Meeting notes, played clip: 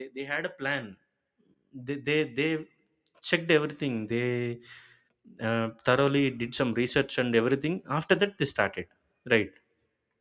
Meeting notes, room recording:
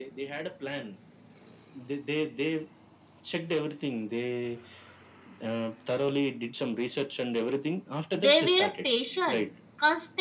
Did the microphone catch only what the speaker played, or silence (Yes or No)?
No